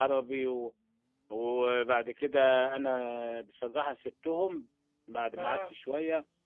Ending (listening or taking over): listening